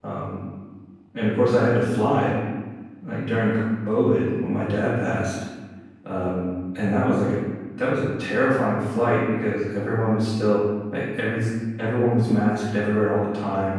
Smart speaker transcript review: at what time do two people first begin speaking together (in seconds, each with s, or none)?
none